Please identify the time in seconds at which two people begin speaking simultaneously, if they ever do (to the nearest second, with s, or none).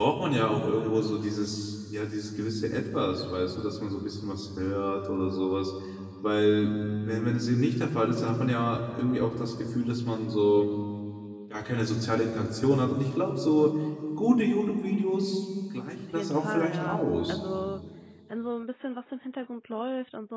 16 s